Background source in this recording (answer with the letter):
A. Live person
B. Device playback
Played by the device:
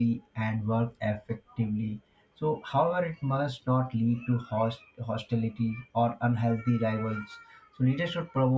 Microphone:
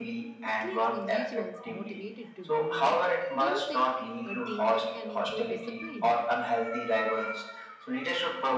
A